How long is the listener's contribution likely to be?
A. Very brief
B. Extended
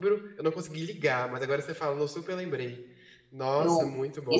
B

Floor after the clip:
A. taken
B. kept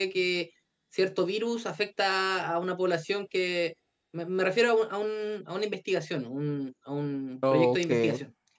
B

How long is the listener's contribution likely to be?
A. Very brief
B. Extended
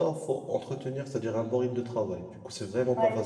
B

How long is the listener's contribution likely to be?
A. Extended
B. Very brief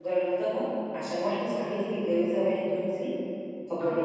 B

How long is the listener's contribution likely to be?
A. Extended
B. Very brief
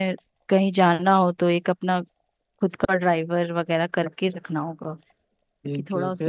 A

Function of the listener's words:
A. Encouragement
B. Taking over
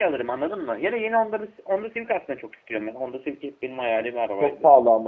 B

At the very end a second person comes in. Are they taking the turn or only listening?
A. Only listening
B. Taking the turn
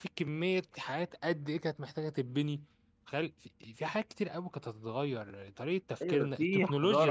B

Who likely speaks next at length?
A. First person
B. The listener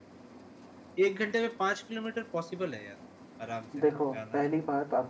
B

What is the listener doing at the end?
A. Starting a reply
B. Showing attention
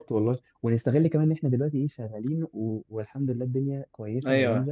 A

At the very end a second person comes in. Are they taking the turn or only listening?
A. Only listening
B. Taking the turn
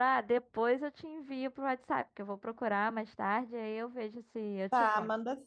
B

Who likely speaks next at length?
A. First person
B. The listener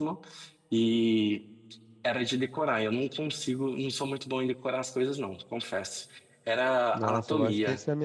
B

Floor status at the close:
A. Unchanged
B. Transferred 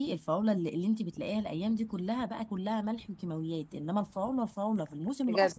A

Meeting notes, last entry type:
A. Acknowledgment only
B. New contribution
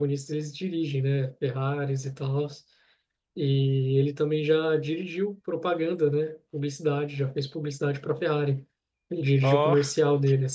A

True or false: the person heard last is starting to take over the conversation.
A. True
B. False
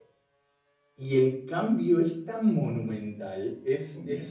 B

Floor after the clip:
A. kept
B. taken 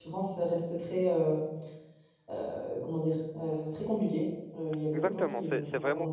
B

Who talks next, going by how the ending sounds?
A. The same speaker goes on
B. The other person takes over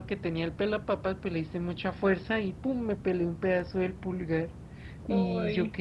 A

